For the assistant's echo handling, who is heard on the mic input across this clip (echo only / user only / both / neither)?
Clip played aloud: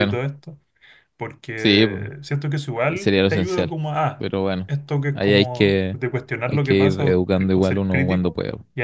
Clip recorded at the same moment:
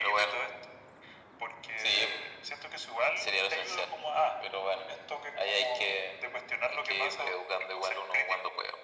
echo only